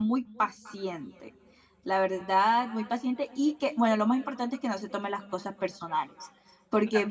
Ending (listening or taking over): listening